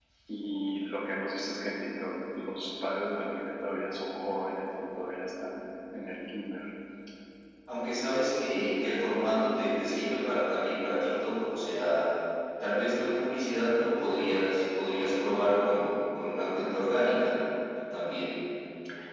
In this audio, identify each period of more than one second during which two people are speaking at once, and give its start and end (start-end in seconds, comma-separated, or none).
none